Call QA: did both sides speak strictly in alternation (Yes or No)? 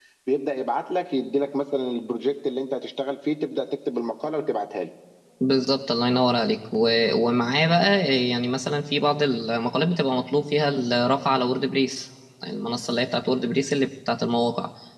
Yes